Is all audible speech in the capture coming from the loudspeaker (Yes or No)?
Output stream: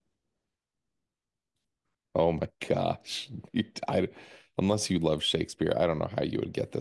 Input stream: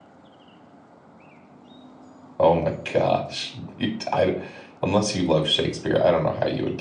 Yes